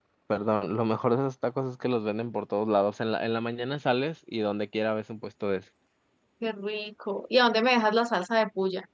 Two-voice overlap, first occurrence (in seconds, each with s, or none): none